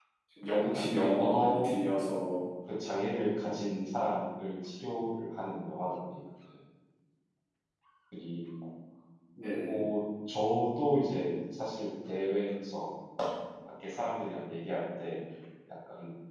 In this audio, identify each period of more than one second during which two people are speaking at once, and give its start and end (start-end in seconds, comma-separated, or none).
0.7-2.0